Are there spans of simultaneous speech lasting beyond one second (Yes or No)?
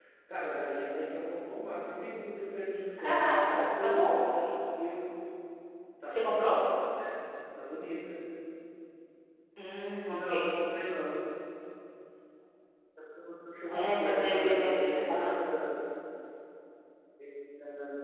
Yes